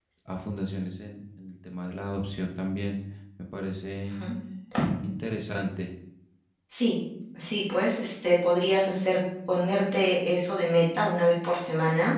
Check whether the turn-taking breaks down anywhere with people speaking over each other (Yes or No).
No